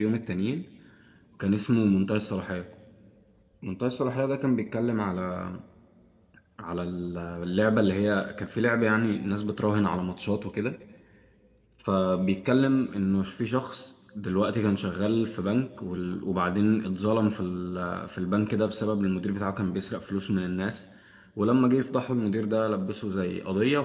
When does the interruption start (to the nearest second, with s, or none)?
none